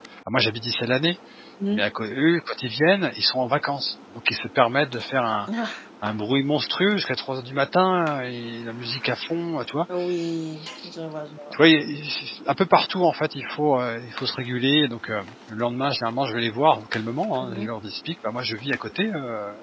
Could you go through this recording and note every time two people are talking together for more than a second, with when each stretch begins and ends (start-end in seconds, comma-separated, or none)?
none